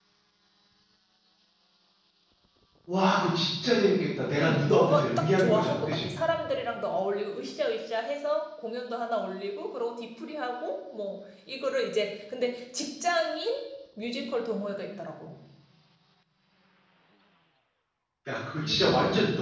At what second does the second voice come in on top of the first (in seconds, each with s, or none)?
4.4 s